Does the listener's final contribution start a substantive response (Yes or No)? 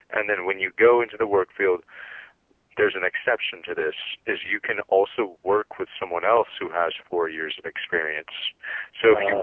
No